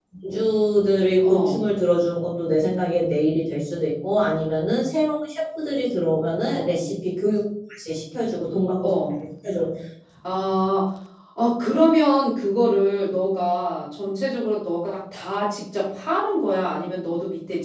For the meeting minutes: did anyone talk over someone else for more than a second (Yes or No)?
No